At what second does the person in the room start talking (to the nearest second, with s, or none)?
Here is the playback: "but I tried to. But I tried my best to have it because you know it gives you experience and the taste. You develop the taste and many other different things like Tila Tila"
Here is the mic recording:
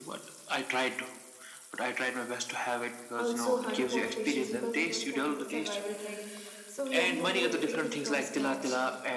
3 s